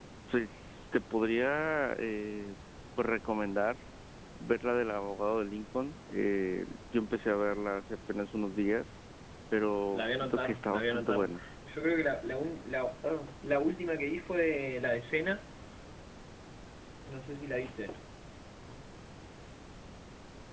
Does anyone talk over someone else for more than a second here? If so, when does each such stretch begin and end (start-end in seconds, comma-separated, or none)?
9.9-11.2